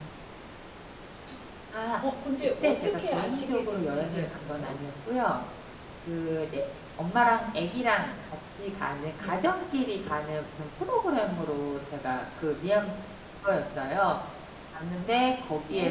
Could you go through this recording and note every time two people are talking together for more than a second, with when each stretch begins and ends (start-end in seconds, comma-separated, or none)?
2.6-4.8